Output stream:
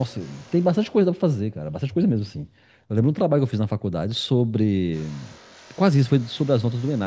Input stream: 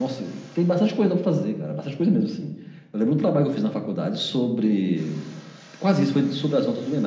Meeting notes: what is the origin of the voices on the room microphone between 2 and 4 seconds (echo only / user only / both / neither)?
echo only